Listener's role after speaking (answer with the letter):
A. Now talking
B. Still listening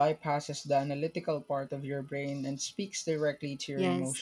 A